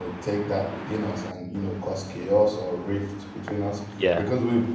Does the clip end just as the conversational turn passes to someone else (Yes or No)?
No